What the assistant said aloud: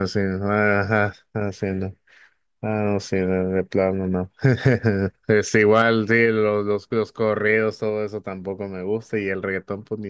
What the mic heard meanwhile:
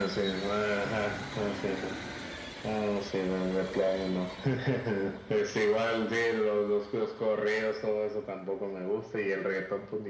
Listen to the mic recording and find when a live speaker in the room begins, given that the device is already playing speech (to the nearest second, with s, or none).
none